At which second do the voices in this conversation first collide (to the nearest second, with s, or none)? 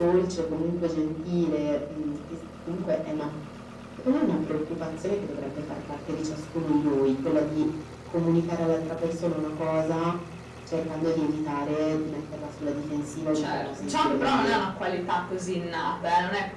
13 s